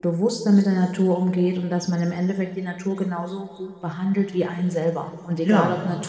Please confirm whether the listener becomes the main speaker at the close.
No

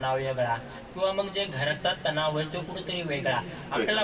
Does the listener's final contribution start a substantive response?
No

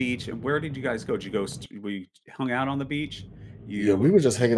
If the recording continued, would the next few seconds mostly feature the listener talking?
Yes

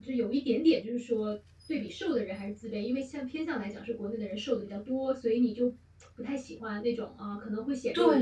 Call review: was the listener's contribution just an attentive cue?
No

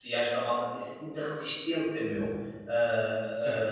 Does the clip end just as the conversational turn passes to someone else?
Yes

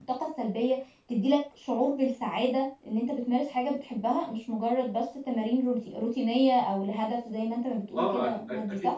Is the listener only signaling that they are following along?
No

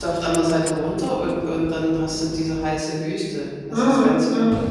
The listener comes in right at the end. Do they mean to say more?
Yes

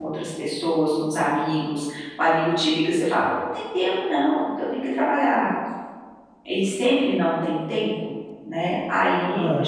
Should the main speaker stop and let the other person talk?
No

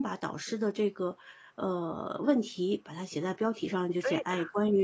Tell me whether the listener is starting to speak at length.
No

